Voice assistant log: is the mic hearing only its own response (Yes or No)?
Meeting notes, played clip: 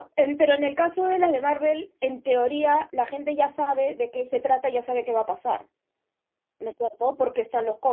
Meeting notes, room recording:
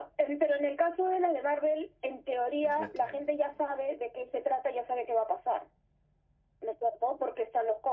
No